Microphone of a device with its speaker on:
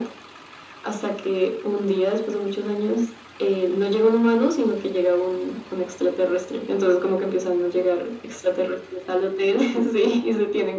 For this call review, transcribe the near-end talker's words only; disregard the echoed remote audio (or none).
none